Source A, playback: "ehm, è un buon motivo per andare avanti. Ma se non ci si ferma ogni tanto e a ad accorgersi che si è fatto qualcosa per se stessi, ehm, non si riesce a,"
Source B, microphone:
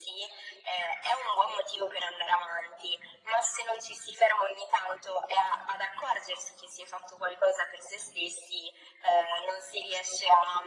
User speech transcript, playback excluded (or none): none